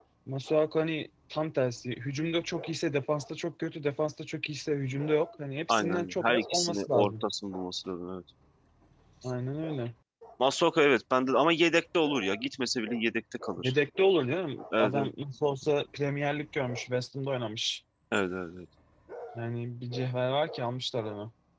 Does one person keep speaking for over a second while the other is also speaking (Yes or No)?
Yes